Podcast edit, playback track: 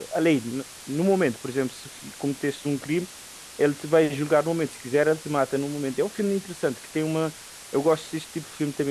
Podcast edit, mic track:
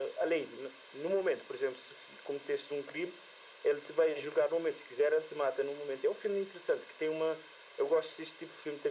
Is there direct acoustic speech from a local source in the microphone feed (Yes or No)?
No